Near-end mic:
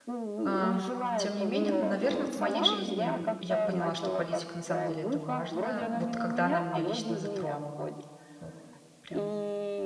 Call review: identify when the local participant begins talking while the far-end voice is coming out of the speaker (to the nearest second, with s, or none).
0 s